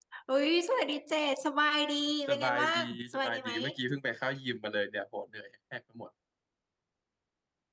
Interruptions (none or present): present